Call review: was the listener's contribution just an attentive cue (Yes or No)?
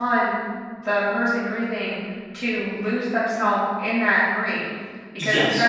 Yes